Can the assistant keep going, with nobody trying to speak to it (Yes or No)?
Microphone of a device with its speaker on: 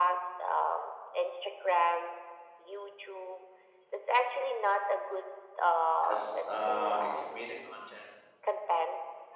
No